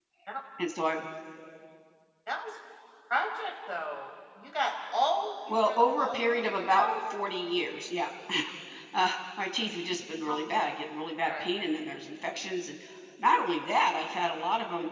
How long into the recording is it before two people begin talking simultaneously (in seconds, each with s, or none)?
5.5 s